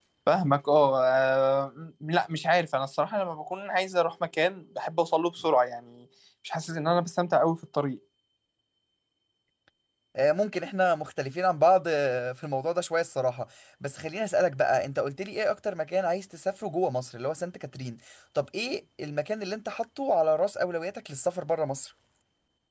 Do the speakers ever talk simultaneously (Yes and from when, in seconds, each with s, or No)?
No